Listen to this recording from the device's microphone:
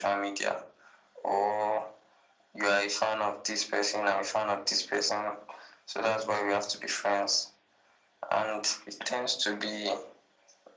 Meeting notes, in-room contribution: none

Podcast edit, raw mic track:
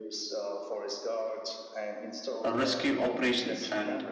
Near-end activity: present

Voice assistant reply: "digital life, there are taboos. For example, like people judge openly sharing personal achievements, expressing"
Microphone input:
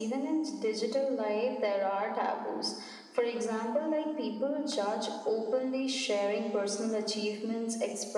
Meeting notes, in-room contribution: none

